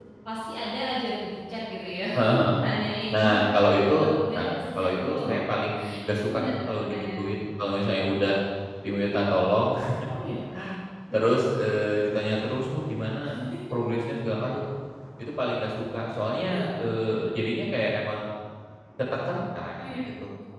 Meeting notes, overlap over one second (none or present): present